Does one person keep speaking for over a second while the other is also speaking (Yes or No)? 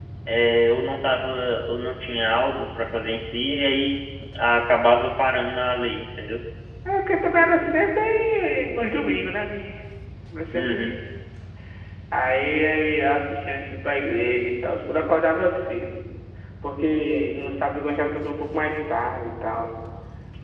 No